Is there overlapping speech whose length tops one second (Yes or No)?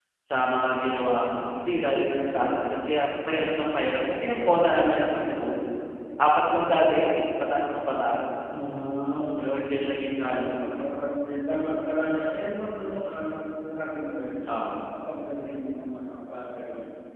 No